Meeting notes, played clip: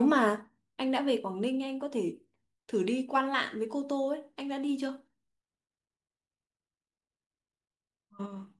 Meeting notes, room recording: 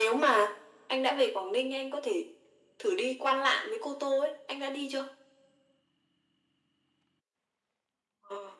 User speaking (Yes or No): No